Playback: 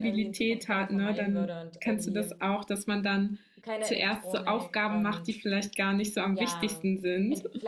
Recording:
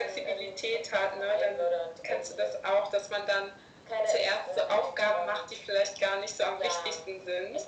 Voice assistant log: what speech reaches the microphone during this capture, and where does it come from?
echo only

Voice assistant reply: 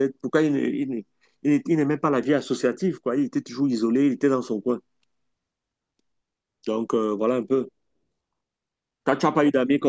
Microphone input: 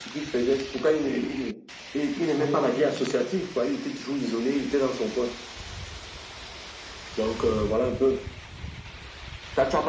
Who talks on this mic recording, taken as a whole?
both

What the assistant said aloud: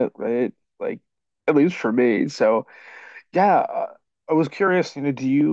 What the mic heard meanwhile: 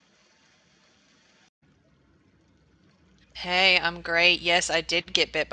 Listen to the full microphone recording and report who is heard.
user only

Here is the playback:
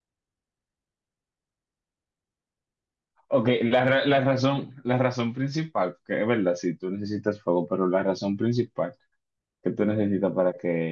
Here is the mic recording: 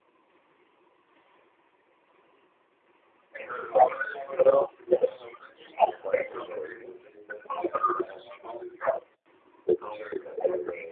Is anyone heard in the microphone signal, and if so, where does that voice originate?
both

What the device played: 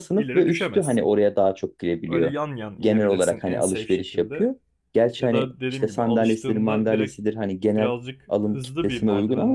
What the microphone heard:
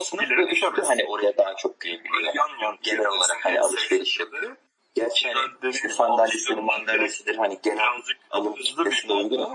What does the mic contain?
echo only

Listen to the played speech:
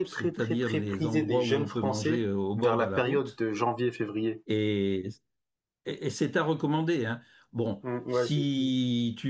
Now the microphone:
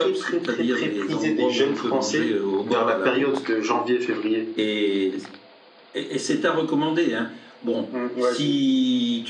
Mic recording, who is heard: echo only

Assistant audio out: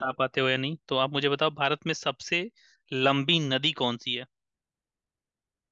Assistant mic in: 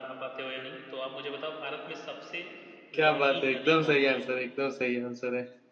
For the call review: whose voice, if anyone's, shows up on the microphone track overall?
both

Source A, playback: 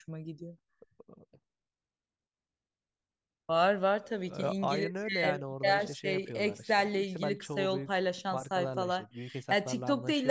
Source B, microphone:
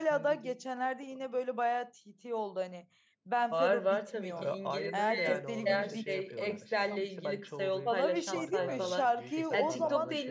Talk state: both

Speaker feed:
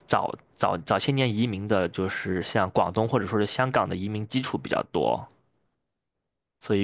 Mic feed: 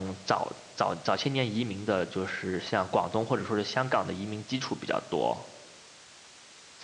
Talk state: echo only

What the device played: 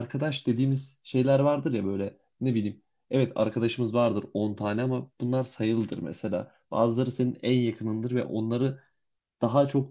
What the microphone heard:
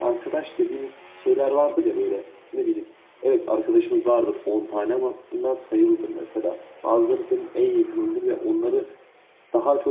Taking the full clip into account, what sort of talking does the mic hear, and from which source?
echo only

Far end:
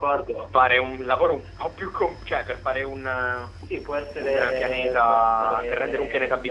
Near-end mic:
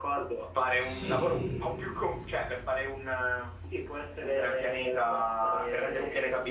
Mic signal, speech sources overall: both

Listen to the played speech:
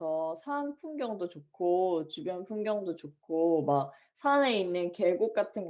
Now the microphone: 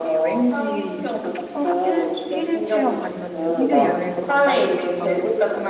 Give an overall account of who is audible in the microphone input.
both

